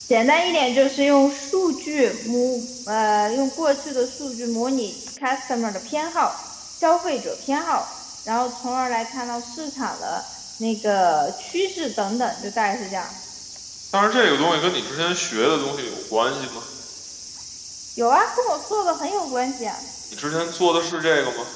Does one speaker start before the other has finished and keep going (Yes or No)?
No